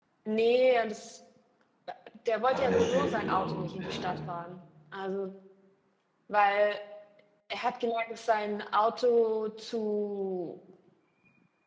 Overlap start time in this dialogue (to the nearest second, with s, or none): 2 s